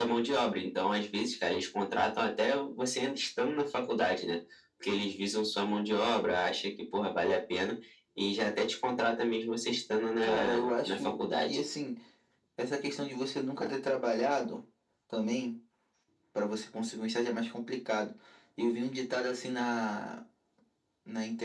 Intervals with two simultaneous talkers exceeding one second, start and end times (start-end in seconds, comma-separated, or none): 10.2-11.6